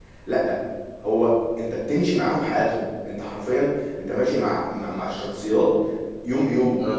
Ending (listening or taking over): listening